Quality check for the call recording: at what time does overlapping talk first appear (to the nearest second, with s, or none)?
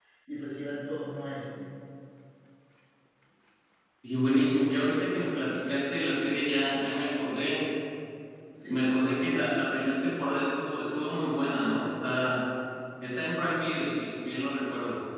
9 s